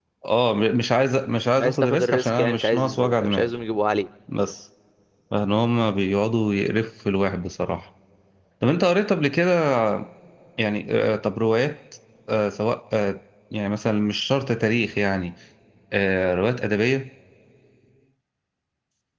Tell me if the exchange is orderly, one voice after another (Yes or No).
No